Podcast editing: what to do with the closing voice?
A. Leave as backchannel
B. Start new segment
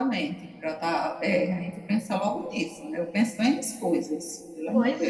B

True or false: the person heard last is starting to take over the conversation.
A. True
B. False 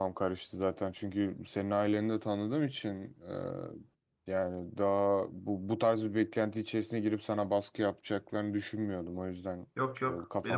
A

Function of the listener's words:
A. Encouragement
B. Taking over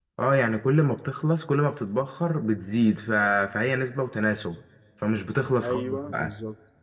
B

